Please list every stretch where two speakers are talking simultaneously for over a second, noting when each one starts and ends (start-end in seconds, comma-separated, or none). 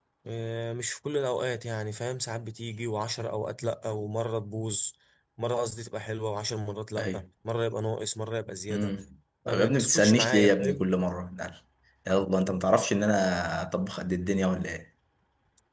9.5-10.9